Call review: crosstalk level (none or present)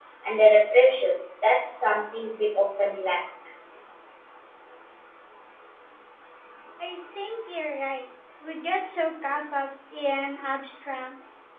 none